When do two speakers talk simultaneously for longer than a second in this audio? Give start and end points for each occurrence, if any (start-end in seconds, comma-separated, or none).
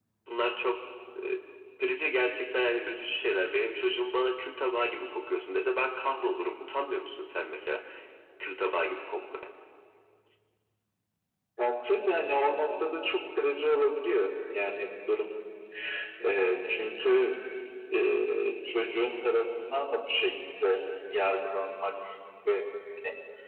none